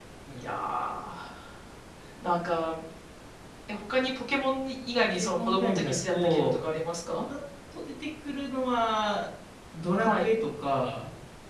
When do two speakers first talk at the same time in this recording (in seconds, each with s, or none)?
5.1 s